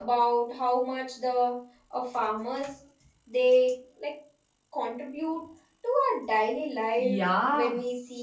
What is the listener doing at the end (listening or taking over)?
taking over